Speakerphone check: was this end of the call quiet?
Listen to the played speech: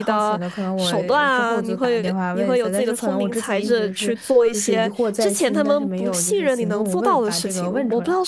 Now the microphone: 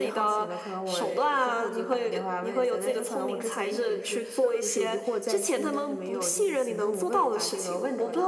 Yes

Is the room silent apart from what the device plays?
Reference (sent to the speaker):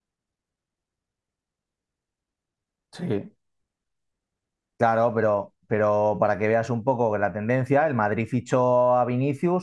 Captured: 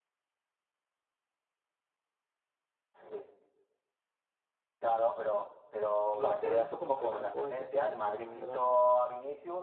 No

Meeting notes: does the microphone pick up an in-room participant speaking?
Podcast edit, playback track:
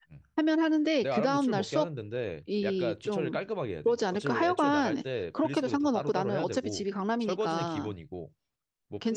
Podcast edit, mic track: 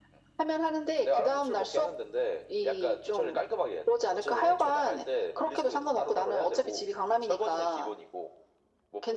No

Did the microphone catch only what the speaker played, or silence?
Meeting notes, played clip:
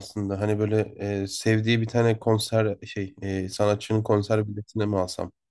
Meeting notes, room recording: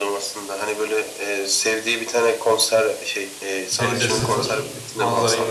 No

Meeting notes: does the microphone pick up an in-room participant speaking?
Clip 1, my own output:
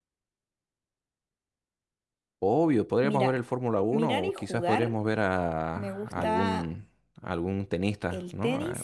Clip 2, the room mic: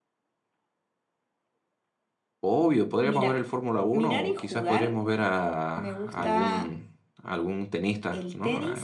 No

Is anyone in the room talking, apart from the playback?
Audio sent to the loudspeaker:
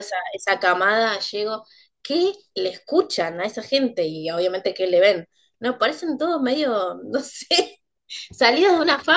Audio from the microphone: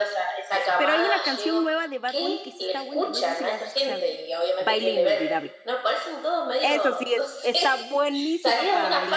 Yes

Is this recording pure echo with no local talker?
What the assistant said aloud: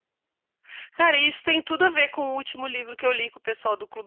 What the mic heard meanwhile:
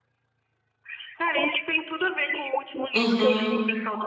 No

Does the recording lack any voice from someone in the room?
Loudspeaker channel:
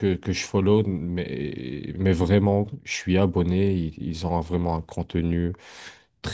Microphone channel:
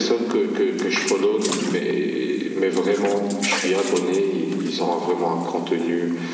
Yes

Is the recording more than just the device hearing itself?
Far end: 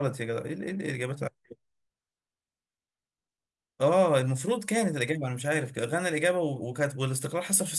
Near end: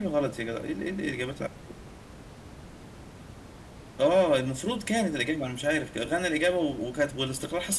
No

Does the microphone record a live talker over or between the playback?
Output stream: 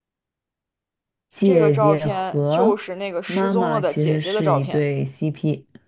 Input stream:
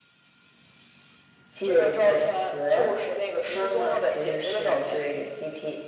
No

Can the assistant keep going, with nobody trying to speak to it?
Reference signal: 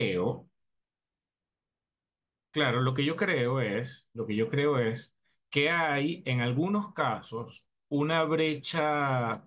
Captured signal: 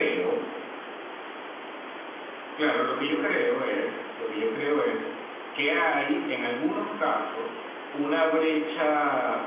Yes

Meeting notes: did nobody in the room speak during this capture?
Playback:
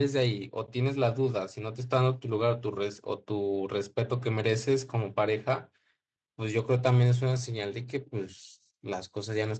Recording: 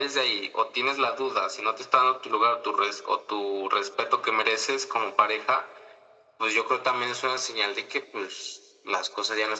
Yes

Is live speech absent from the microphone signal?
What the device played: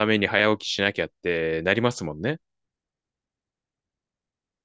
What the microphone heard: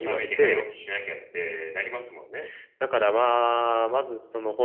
No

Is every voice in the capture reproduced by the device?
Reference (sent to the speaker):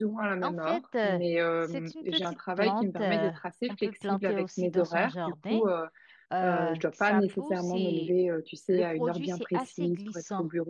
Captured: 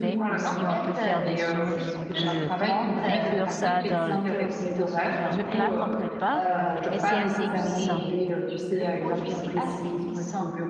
No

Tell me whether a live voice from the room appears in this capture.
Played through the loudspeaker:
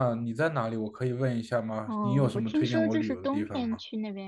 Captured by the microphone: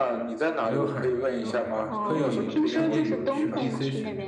Yes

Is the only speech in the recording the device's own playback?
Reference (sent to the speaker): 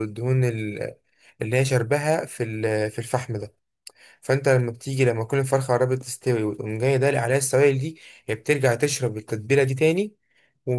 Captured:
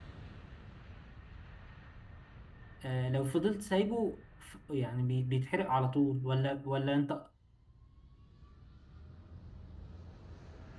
No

